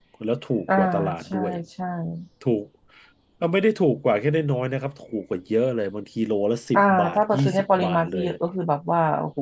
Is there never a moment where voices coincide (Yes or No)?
No